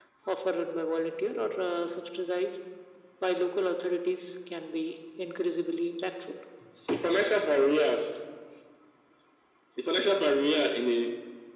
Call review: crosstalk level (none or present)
none